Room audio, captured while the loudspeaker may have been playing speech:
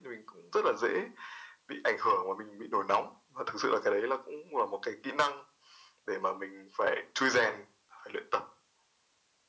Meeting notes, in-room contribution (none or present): none